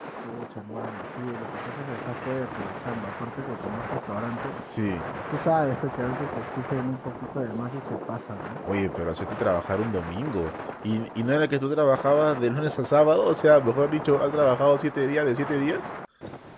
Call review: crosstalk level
none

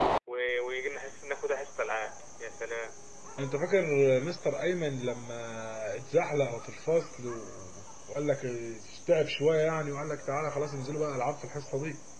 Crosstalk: none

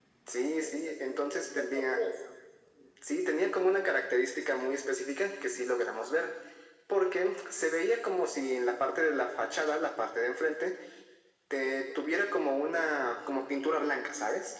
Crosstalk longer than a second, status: present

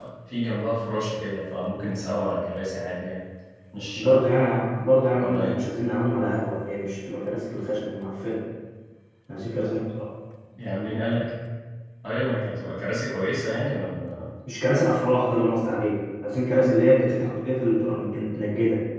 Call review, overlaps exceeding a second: none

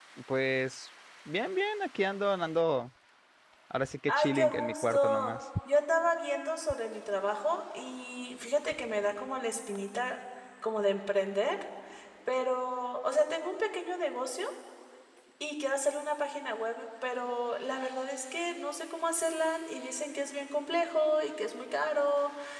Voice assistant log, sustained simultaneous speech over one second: present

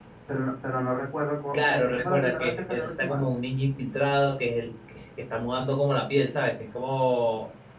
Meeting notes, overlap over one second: present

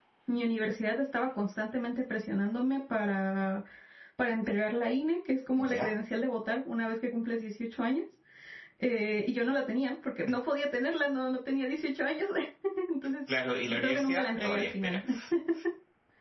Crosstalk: present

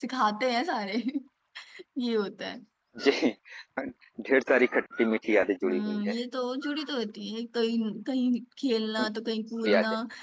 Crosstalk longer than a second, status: none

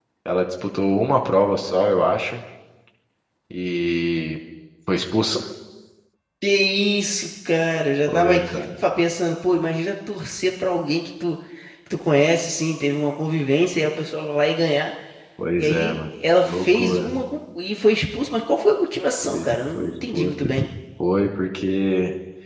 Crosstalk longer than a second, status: present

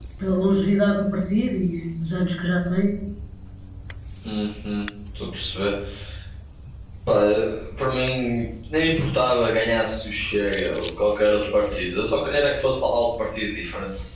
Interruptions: none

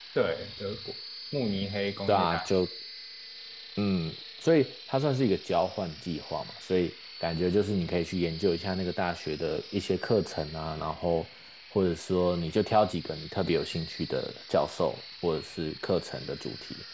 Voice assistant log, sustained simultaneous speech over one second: none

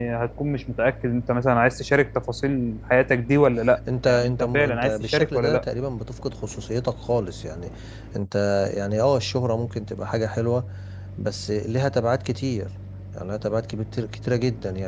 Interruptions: present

